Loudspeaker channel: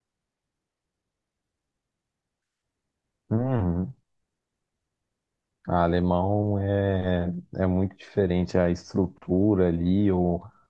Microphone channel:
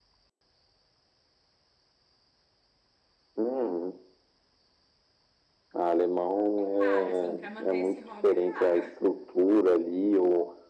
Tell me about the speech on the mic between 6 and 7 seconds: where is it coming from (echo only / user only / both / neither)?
both